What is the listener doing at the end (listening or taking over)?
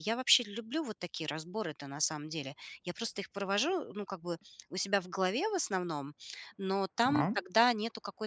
listening